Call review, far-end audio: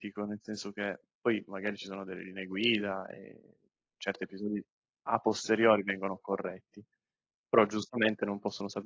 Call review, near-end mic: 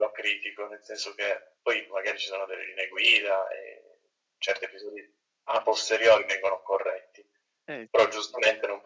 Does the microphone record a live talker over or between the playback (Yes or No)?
Yes